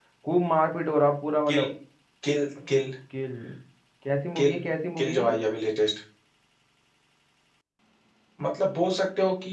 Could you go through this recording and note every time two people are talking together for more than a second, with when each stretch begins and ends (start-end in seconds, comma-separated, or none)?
none